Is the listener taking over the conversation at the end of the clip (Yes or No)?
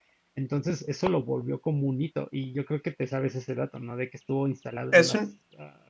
No